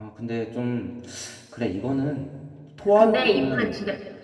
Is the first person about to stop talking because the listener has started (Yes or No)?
Yes